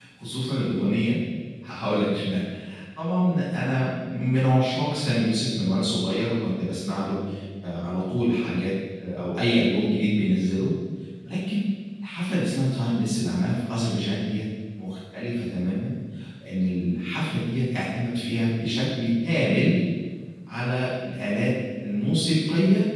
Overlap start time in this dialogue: none

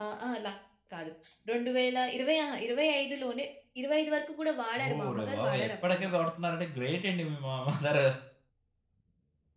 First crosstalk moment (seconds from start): 4.8 s

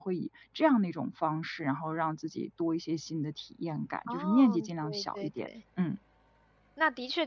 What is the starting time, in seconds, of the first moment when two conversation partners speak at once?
4.1 s

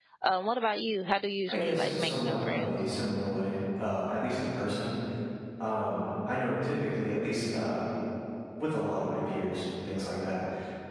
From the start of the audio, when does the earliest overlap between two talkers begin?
1.5 s

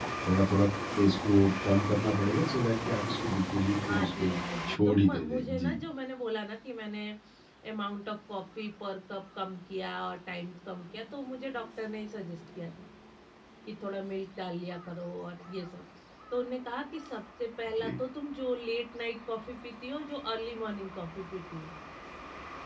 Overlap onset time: 3.8 s

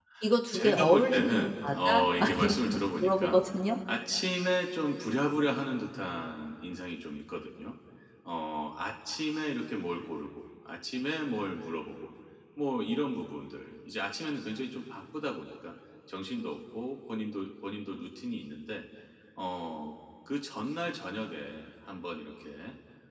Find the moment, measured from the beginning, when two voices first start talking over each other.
0.5 s

